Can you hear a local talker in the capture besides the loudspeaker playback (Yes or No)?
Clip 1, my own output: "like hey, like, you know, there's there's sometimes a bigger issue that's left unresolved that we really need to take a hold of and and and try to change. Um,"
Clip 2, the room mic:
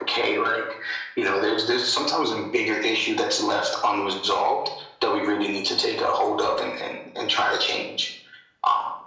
No